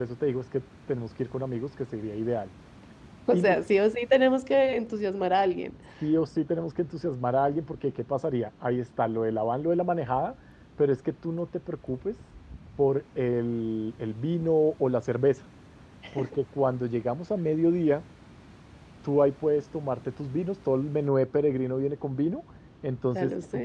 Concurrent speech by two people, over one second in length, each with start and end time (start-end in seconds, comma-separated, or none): none